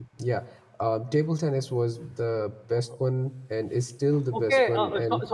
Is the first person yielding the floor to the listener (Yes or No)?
Yes